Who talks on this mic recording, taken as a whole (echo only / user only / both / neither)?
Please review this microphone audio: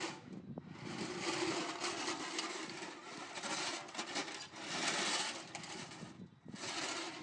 neither